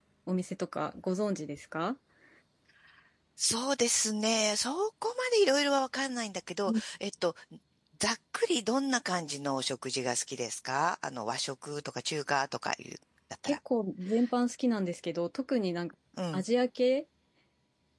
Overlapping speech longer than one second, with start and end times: none

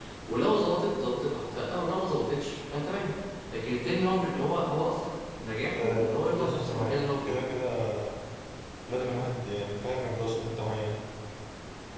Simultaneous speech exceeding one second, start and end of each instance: 5.8-7.3

